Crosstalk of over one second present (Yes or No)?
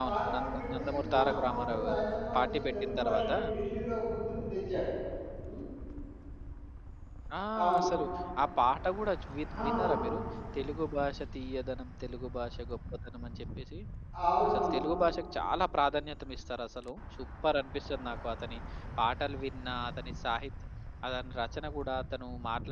Yes